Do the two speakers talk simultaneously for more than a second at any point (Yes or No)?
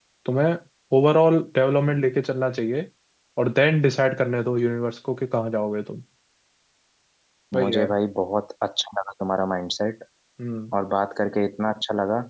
No